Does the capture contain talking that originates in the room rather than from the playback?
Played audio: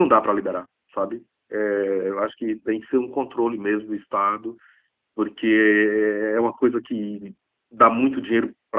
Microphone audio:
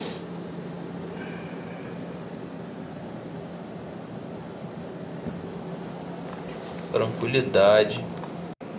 Yes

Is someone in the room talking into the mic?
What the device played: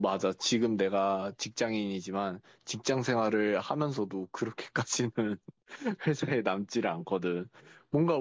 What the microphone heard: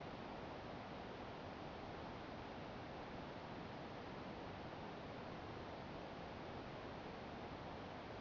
No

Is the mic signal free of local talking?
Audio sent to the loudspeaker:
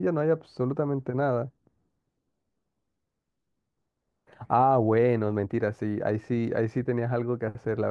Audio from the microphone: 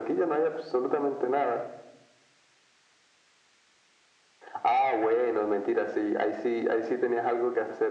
Yes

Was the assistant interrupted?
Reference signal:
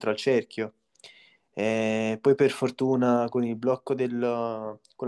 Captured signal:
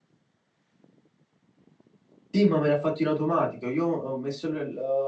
Yes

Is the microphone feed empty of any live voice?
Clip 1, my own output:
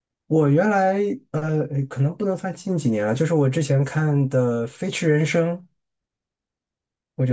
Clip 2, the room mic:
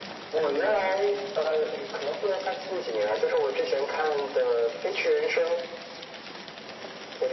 Yes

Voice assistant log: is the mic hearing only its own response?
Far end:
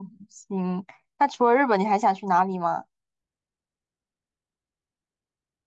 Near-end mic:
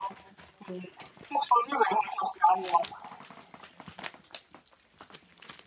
Yes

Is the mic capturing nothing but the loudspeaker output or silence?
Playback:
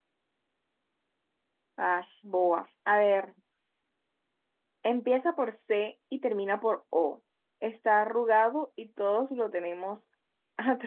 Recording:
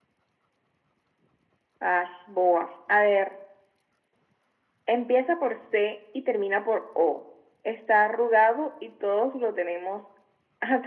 Yes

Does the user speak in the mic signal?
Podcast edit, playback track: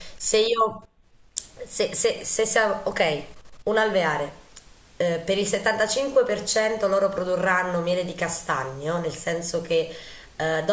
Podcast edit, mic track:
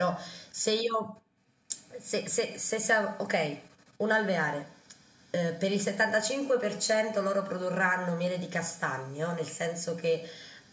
No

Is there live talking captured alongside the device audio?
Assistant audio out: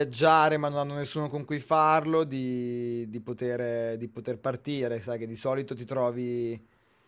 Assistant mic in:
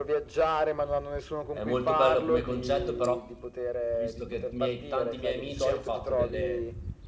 Yes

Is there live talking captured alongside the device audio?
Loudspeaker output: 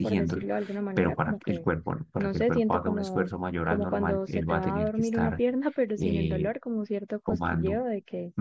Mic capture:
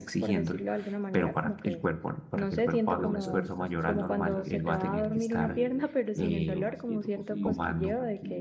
Yes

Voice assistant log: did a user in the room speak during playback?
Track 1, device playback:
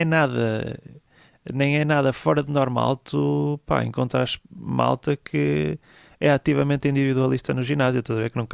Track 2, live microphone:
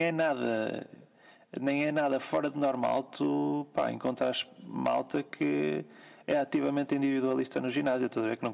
No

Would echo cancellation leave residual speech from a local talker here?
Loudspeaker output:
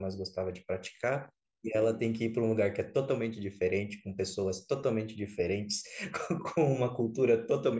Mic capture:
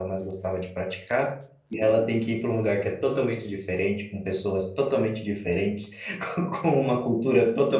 No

